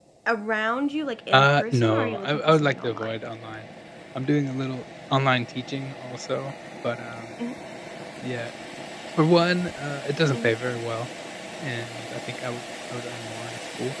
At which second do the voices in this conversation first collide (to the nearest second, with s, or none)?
1 s